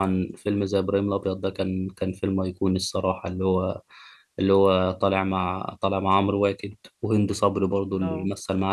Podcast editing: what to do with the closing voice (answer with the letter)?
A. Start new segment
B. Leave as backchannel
B